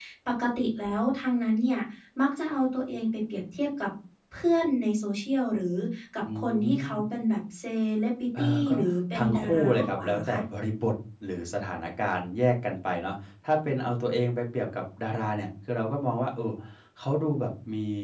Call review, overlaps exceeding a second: present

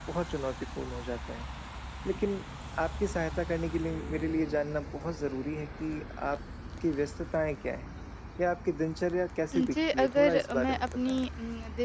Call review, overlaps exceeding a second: present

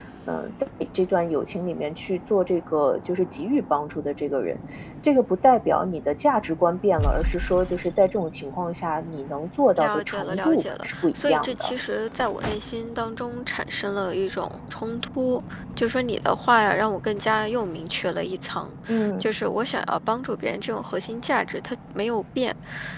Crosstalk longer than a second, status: present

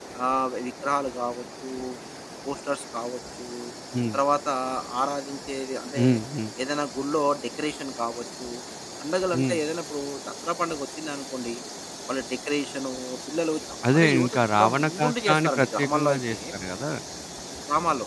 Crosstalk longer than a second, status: present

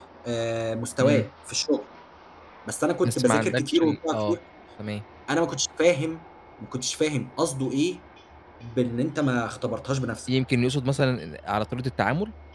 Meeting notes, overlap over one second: present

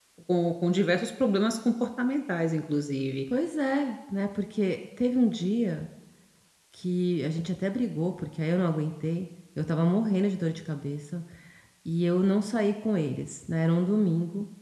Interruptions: none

